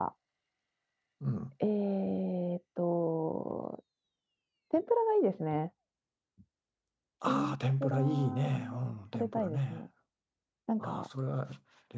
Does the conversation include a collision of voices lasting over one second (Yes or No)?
Yes